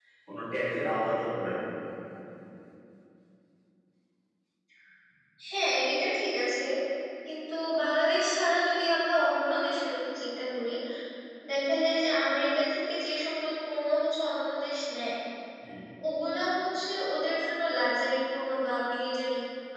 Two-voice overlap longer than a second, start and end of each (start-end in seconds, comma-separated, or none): none